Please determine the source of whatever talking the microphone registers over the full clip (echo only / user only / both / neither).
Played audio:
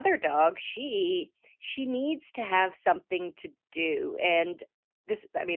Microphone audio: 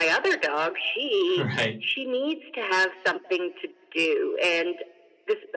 both